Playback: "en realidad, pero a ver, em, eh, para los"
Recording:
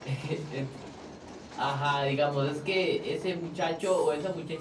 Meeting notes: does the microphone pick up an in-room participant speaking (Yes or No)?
Yes